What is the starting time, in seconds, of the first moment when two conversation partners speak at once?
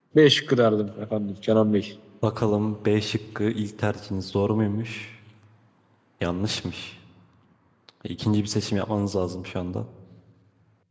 none

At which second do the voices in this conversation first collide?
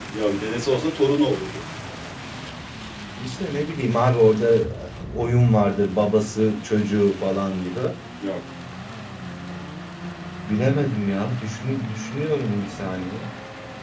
none

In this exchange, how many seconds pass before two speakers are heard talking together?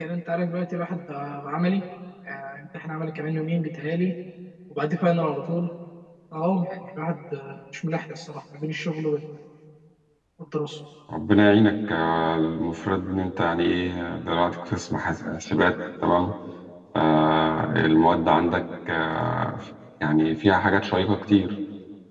none

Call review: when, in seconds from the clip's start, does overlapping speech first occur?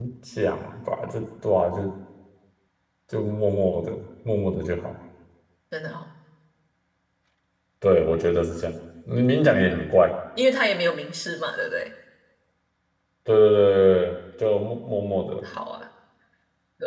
none

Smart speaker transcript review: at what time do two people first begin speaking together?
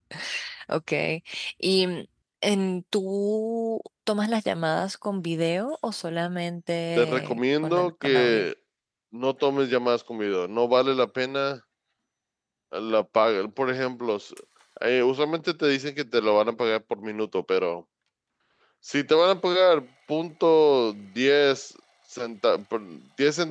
7.0 s

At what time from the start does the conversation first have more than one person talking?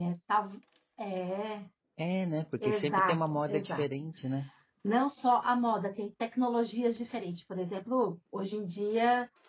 2.6 s

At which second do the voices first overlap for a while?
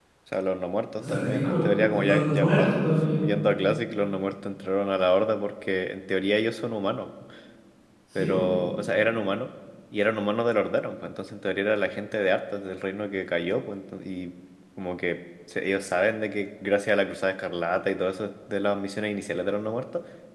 1.0 s

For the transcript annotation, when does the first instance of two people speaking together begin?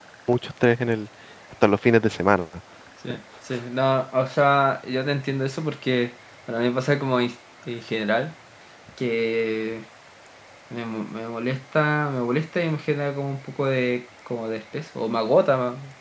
none

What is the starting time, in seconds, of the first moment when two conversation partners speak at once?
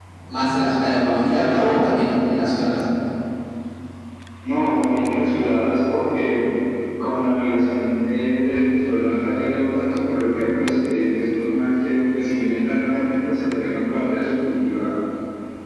none

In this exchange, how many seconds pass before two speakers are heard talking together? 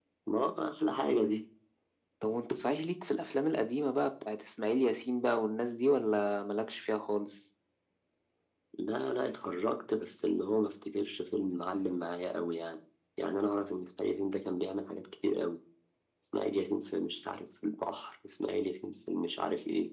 none

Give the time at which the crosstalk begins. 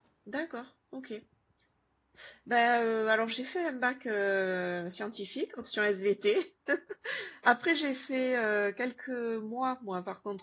none

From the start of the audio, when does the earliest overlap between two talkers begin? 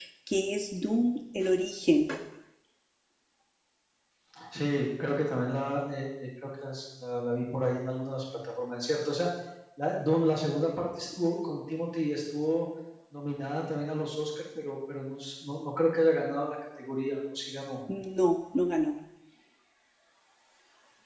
none

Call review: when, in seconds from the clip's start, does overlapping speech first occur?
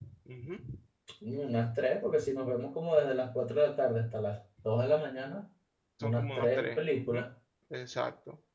6.0 s

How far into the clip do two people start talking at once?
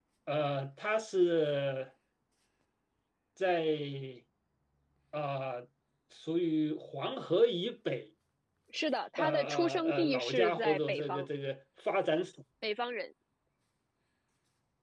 9.2 s

